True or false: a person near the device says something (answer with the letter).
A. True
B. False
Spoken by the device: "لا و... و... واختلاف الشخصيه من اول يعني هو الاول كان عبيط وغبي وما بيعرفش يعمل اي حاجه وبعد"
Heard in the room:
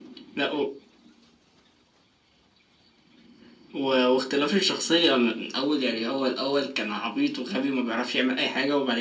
B